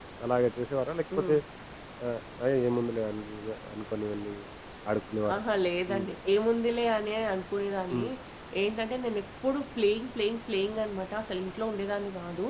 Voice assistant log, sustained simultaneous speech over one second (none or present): none